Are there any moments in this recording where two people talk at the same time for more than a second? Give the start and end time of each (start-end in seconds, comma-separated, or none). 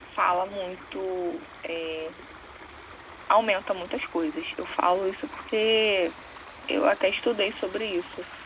none